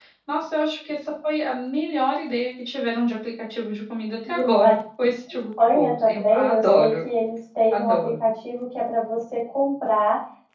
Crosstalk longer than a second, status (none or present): present